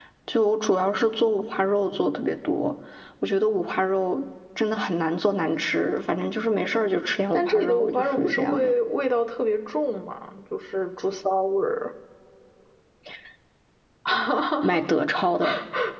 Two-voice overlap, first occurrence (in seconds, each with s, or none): 7.3 s